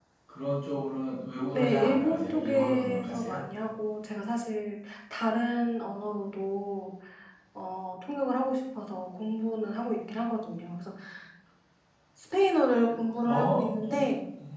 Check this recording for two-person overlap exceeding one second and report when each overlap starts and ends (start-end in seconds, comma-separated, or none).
1.5-3.4